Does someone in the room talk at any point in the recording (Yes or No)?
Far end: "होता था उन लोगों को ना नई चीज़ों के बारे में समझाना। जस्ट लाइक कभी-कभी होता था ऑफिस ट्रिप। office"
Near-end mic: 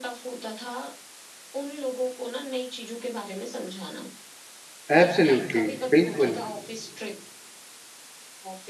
Yes